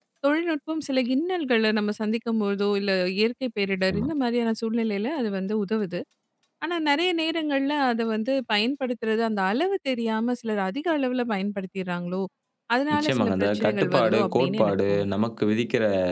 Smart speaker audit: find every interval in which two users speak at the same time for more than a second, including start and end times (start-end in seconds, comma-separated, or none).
12.9-15.1